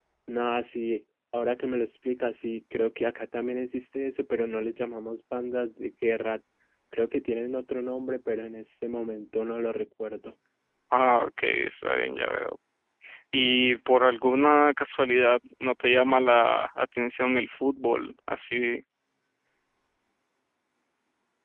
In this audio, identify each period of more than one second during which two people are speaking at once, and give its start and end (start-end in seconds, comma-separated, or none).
none